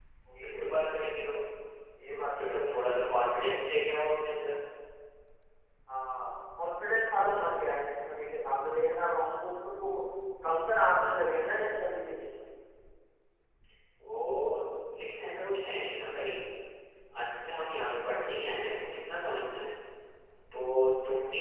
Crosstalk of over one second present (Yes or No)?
No